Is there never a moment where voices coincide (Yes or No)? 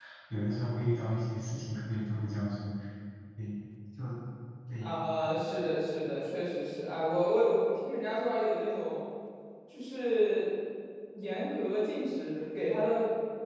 Yes